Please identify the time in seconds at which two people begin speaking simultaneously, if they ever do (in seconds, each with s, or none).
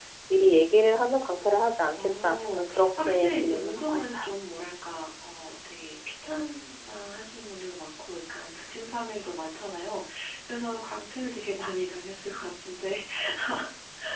2.2 s